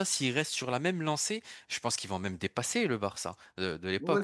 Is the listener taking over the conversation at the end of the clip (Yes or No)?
Yes